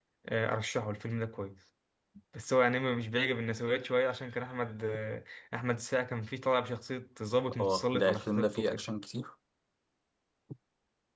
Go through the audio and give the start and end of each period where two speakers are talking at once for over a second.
7.6-8.8

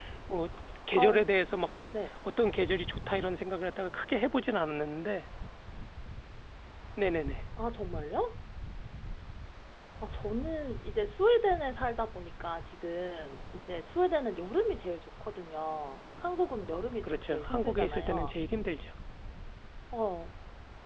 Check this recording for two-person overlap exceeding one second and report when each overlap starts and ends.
17.0-18.4

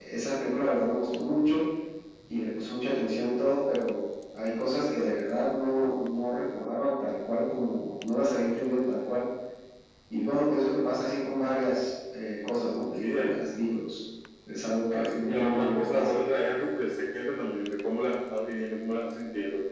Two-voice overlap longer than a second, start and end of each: 14.9-16.2

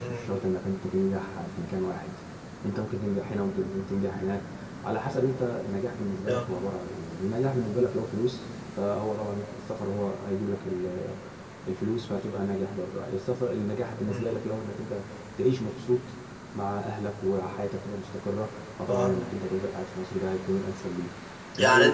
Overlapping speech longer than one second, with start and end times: none

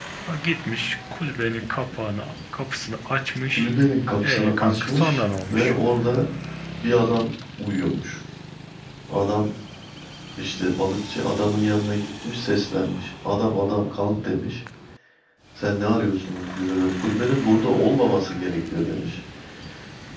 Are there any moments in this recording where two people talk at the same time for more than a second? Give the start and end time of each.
4.2-5.8

